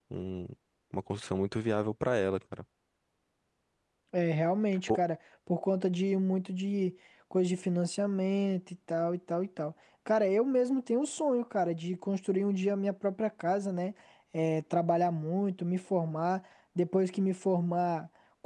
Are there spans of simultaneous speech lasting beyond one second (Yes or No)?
No